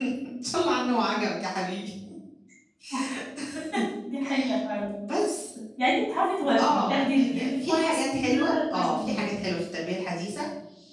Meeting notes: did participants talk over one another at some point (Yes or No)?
Yes